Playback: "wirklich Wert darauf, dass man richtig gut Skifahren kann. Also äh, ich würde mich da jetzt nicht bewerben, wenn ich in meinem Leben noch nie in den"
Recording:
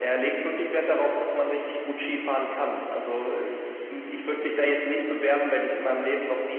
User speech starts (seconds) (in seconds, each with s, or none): none